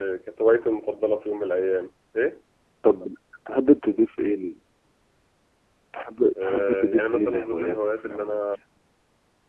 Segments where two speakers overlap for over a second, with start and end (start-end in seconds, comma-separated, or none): 6.4-8.5